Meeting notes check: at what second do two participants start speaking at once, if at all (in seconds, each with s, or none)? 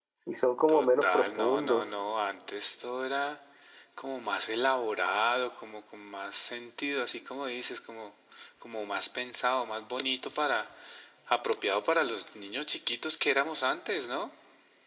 0.7 s